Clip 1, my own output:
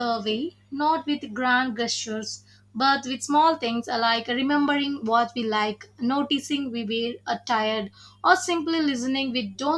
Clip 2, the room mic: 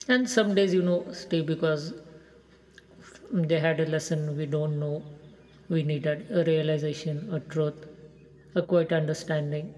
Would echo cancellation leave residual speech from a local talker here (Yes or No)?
Yes